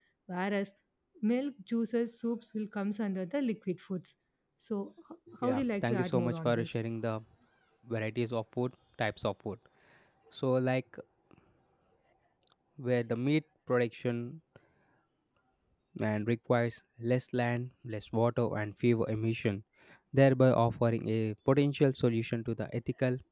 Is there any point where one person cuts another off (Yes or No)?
Yes